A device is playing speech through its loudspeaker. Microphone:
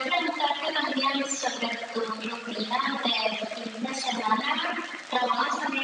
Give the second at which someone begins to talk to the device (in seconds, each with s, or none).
none